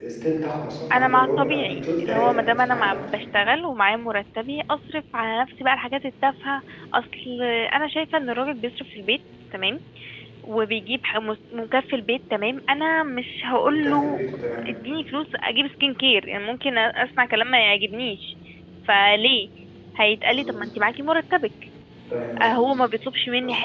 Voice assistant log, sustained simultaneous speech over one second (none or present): present